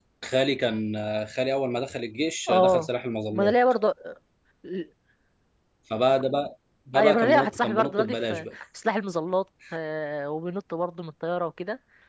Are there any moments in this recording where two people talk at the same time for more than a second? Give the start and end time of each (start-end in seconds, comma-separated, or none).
7.0-8.5